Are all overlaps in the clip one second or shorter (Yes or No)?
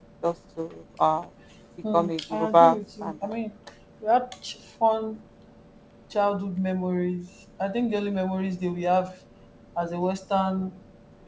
No